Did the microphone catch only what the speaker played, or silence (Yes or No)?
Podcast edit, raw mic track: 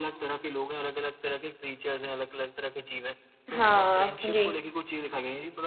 No